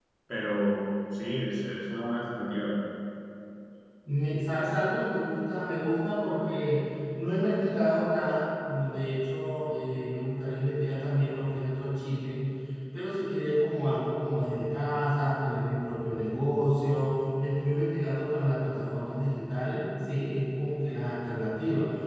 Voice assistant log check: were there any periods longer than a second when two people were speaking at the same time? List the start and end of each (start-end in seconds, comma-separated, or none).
none